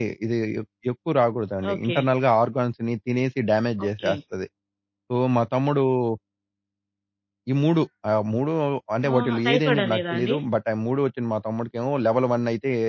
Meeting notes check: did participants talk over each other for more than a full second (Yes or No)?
Yes